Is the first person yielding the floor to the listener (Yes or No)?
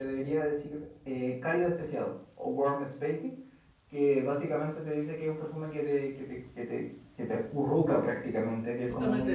Yes